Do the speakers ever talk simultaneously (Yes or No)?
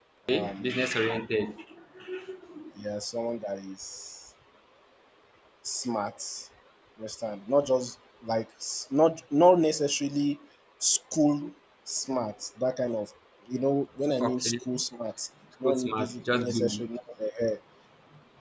Yes